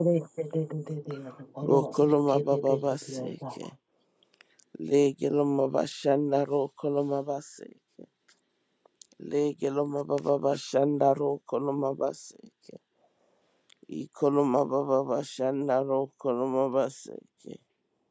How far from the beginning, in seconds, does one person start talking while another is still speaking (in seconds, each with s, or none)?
1.6 s